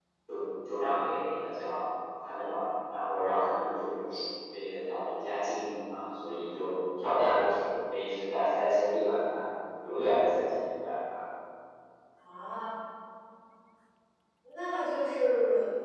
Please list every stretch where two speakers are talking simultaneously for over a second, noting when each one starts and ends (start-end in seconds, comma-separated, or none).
none